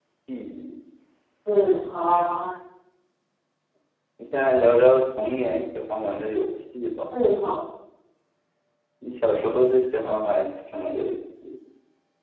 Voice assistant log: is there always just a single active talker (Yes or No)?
Yes